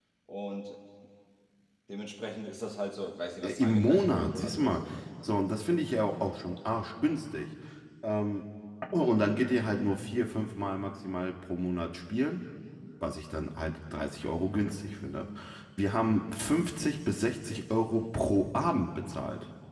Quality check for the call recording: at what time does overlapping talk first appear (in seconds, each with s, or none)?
3.4 s